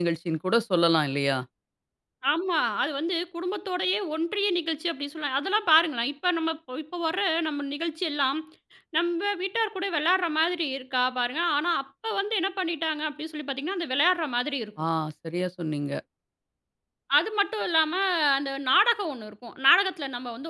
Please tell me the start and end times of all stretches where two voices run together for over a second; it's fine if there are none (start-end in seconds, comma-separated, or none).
none